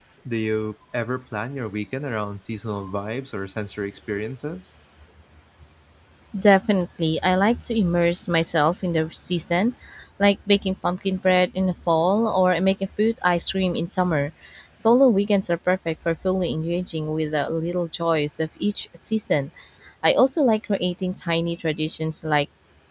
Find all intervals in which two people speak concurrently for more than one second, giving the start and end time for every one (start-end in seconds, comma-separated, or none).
none